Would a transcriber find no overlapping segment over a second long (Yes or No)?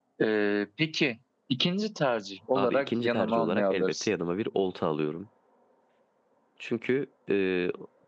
No